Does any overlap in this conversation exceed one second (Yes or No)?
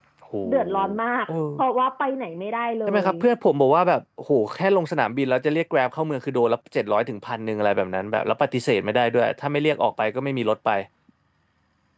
No